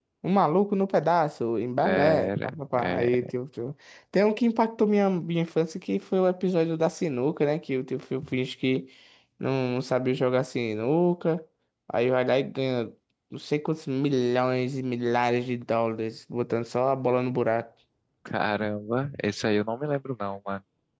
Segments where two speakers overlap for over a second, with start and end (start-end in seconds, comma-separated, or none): 1.8-3.1